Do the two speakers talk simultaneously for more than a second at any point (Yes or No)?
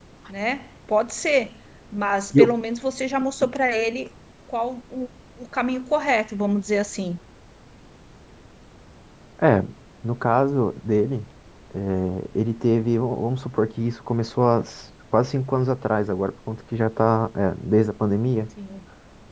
No